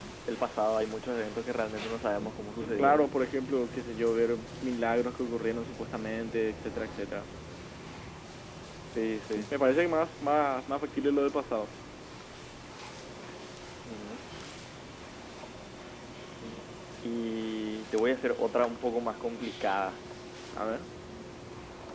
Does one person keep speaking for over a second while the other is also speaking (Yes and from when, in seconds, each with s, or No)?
No